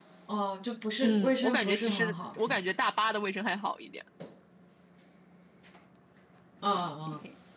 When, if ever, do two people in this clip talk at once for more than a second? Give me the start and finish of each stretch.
1.0-2.6

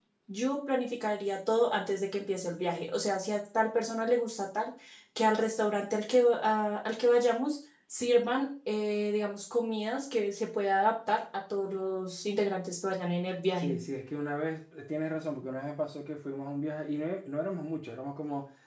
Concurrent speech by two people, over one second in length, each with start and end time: none

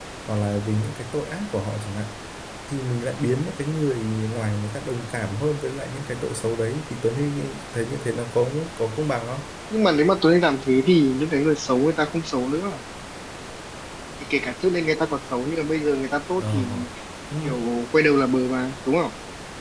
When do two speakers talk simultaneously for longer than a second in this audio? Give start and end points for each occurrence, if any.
none

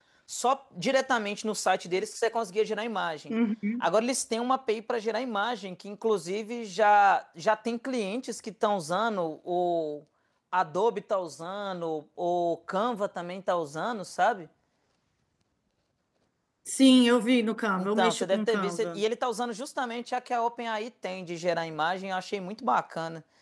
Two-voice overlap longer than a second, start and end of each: 17.8-19.0

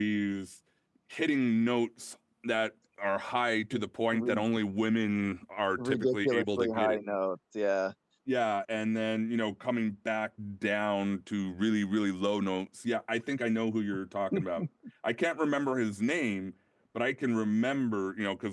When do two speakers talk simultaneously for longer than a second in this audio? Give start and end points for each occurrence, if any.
5.8-7.0

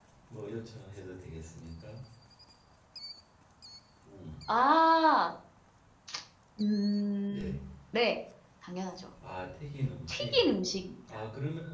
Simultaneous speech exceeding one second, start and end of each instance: none

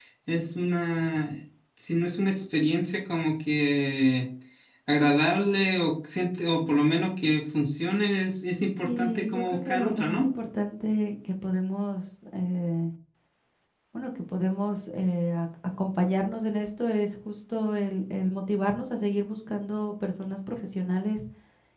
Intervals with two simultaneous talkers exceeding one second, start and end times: 8.8-10.3

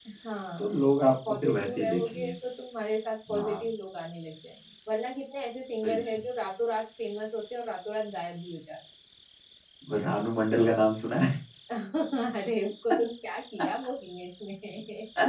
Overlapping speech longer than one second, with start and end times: 0.6-2.3

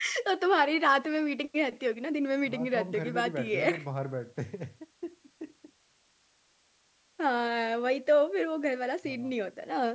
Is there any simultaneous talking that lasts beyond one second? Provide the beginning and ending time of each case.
2.5-3.7

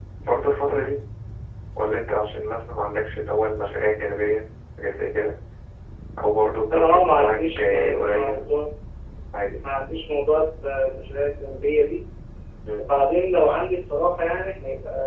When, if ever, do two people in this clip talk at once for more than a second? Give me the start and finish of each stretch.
6.7-8.4

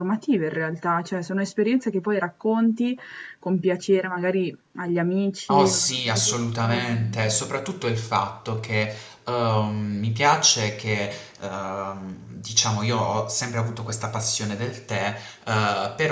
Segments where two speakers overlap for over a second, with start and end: 5.5-7.2

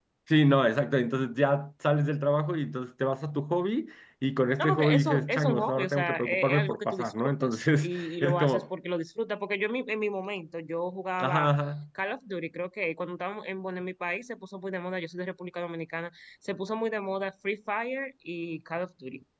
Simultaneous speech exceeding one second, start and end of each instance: 4.6-8.6

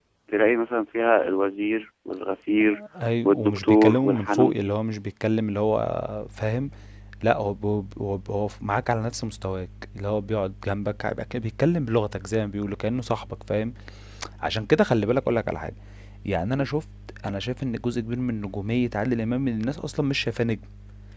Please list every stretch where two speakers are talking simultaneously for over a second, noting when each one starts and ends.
3.2-4.7

